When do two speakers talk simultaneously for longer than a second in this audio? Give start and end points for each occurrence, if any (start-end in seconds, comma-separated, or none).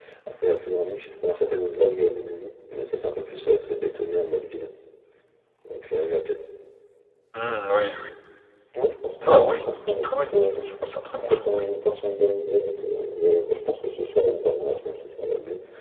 9.2-10.6